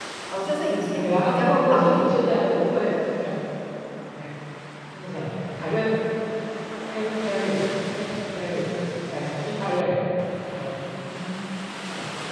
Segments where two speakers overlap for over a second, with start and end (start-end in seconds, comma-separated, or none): 1.0-2.3